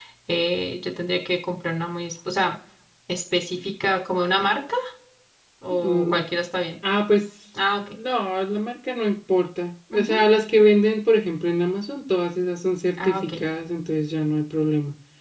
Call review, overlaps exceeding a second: none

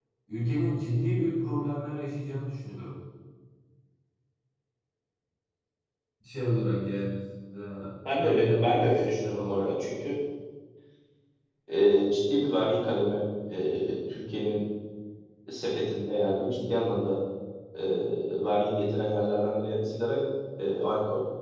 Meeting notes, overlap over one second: present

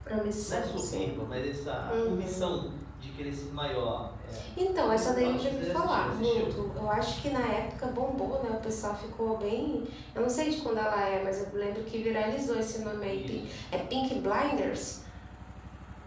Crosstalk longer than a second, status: present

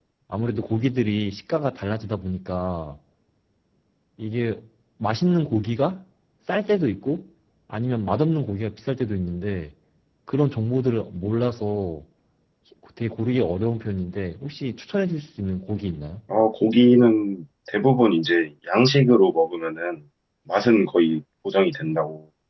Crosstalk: none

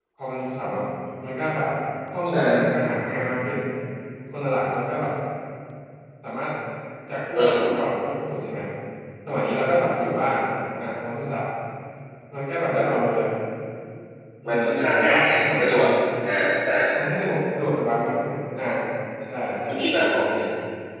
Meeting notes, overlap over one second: present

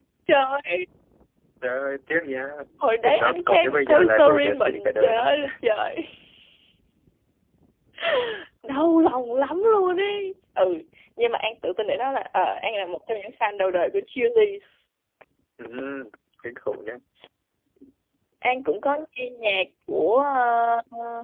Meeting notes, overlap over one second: present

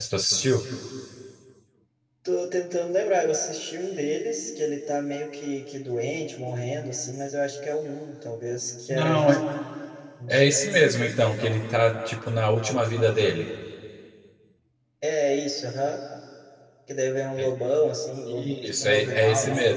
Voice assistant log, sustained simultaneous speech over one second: present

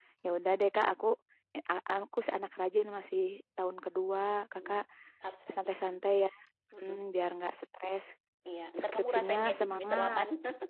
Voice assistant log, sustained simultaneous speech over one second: present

